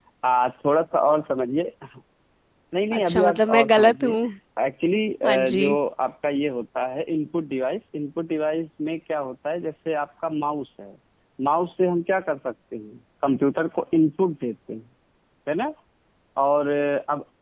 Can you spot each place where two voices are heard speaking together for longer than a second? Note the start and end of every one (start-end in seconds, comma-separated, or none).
2.9-4.2